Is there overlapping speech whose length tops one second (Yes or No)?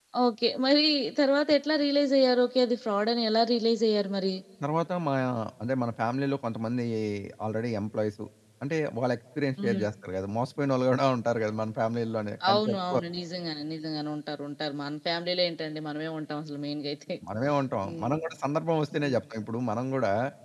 No